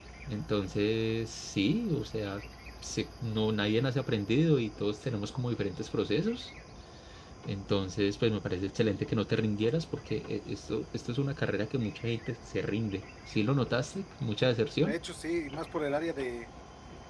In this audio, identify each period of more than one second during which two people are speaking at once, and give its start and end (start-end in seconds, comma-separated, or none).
none